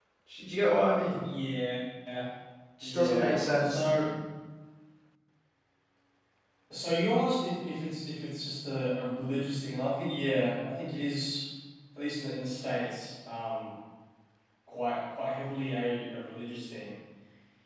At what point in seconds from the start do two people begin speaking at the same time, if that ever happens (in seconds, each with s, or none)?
2.8 s